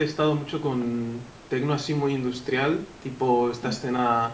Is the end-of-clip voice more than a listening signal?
No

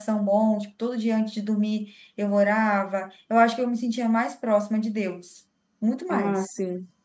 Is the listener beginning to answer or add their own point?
No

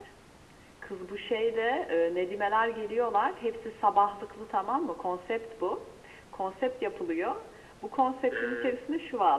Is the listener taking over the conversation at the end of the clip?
No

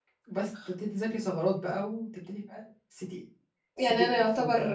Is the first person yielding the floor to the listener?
Yes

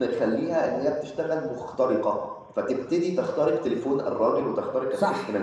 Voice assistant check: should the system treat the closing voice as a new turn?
Yes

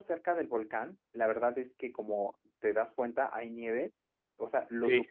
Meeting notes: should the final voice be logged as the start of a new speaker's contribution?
No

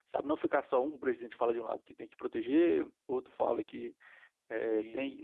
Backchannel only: Yes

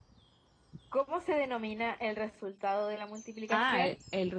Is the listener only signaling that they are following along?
No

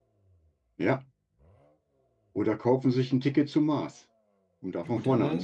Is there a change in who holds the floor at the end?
Yes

